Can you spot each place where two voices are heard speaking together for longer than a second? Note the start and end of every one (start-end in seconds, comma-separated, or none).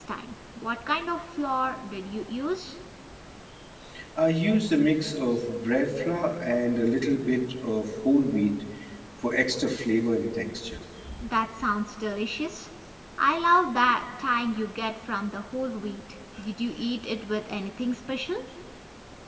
none